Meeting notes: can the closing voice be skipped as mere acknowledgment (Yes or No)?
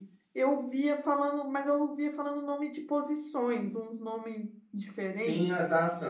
No